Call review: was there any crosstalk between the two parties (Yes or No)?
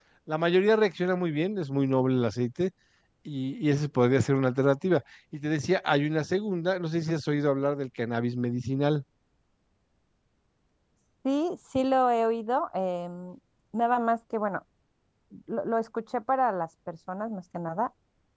No